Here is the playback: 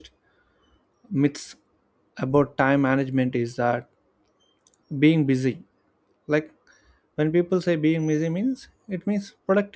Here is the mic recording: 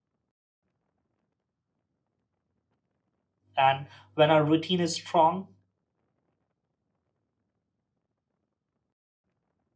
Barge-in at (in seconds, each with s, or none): 3.6 s